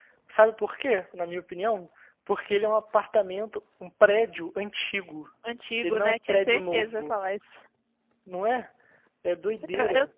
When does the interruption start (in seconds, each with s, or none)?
5.8 s